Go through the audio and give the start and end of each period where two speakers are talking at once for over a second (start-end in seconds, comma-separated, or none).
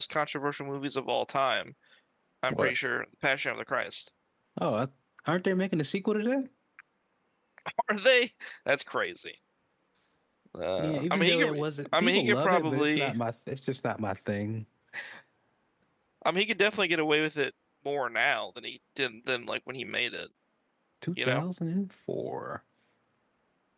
10.8-13.2